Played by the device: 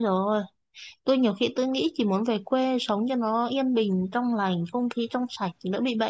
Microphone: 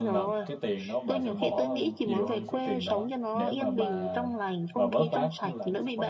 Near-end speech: present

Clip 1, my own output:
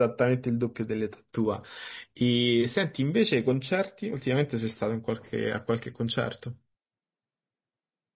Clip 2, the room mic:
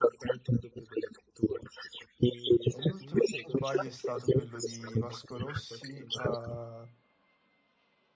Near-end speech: present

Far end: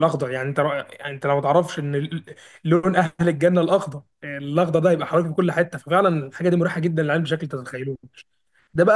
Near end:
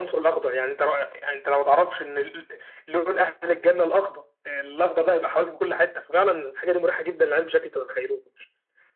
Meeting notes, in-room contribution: none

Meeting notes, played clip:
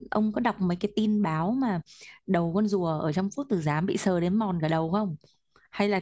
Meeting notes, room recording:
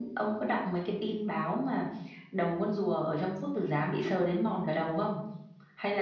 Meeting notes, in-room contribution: none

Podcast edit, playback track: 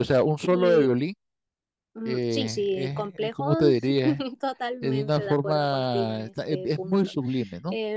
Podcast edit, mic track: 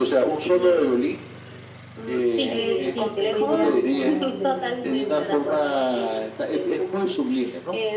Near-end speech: present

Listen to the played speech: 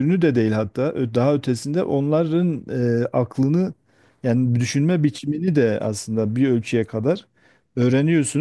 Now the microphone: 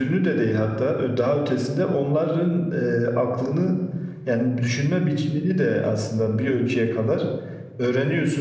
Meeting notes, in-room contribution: none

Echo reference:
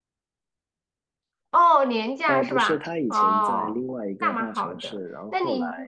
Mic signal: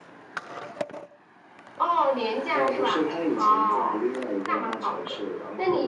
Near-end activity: none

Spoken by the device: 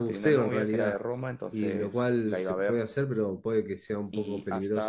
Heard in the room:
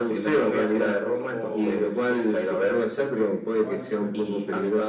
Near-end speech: present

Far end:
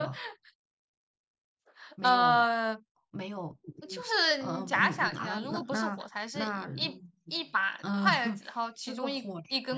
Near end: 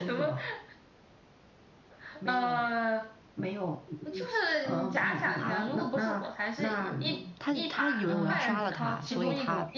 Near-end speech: present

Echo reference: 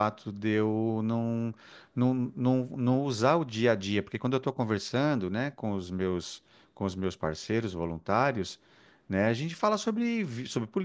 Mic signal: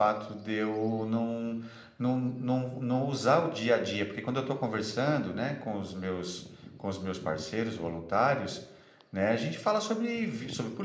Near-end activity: none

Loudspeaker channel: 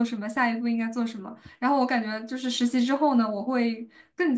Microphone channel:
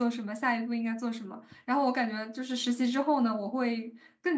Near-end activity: none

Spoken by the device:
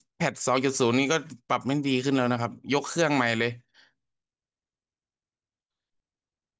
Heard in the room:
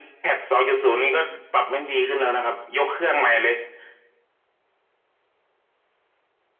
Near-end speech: none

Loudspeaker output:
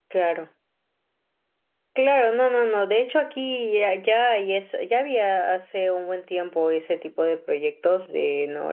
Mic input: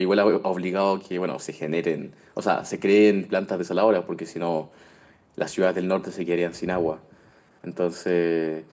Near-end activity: present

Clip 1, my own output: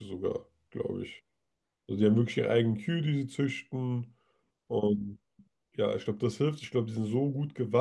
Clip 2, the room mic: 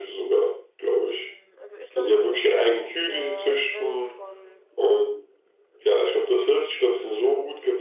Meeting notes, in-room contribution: present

